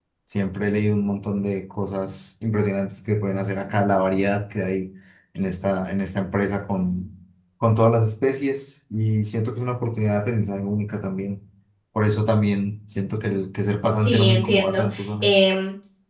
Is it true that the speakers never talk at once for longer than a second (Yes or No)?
No